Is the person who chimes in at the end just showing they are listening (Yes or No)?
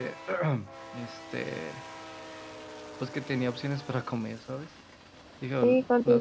No